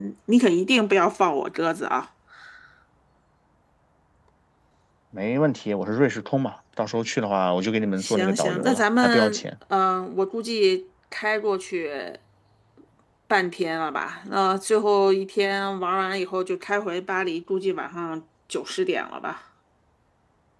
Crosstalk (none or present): present